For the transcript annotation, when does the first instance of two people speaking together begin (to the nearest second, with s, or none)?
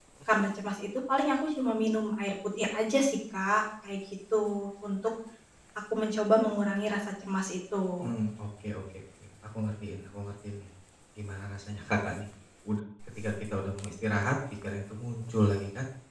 none